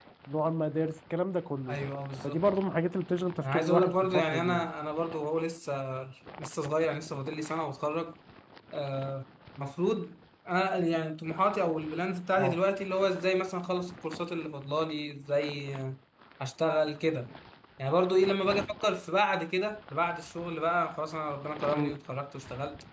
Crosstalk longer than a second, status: present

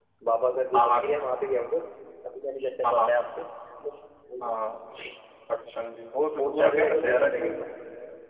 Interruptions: present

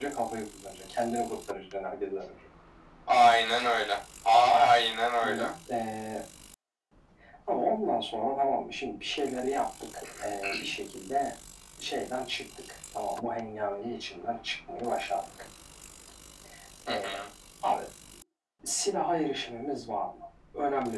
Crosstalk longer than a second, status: none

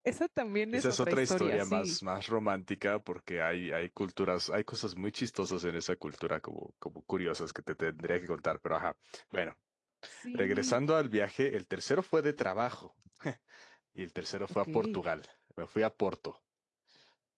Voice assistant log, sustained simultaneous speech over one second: present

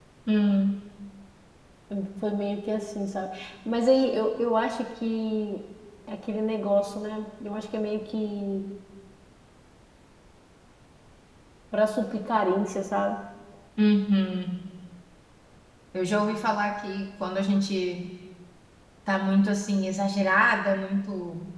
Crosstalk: none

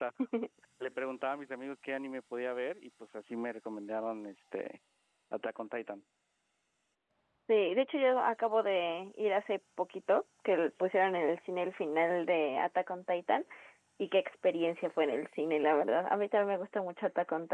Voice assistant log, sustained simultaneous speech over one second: none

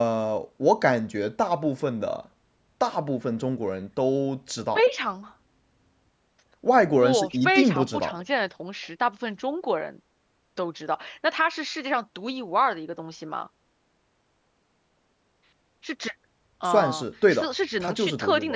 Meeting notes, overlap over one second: present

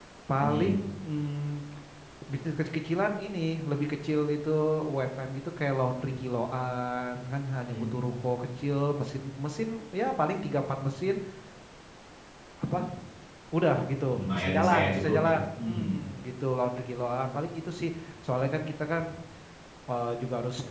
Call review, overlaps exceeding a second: present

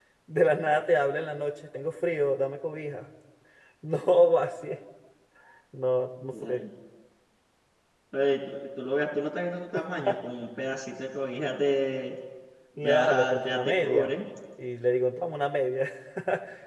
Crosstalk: present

